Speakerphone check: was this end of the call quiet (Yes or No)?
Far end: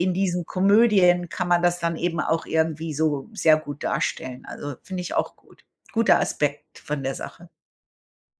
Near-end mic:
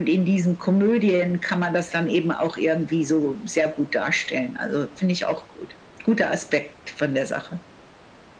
Yes